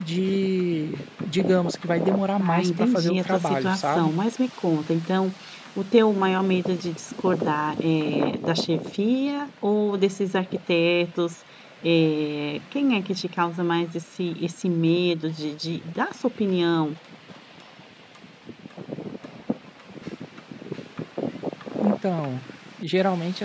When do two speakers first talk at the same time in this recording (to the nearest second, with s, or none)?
2 s